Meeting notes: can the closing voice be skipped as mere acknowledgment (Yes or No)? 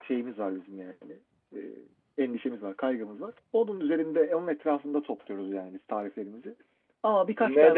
No